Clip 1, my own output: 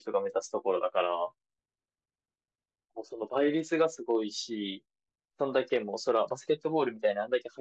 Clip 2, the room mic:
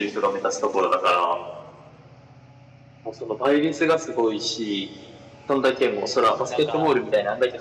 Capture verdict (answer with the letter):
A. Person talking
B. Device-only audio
A